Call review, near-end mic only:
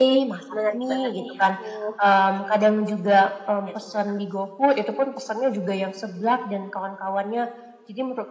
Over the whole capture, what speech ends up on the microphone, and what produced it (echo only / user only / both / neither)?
both